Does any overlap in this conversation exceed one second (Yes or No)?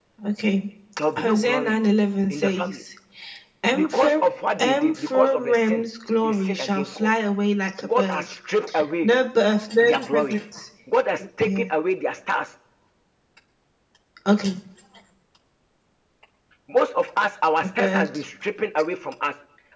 Yes